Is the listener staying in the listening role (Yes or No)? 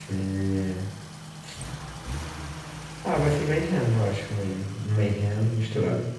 Yes